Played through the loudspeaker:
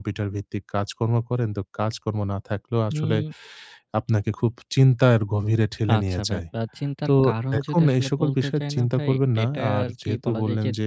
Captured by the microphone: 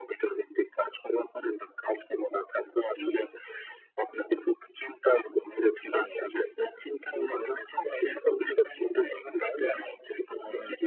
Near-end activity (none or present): none